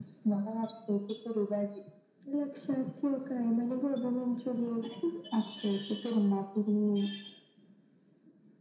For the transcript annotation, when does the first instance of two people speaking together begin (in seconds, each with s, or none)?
none